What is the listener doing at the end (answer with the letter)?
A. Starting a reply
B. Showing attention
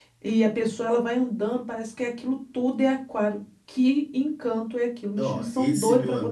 A